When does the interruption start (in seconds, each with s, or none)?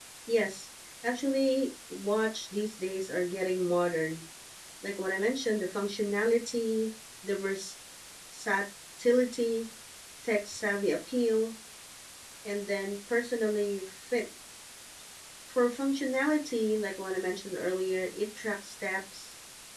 none